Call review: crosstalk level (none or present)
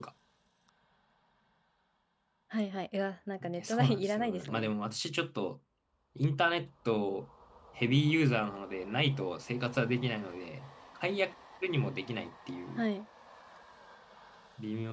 present